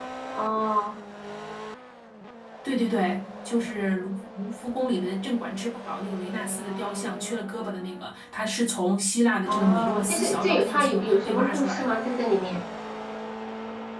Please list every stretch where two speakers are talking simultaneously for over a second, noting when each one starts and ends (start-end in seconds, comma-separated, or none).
9.5-12.0